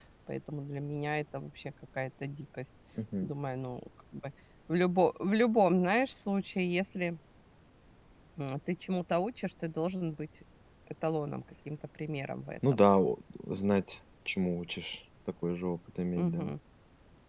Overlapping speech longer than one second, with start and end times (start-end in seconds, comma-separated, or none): none